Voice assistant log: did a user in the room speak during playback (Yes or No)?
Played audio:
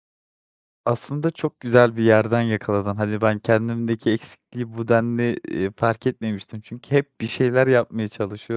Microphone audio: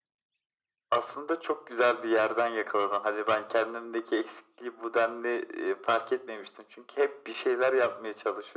No